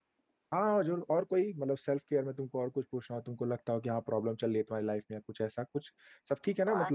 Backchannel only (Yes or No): No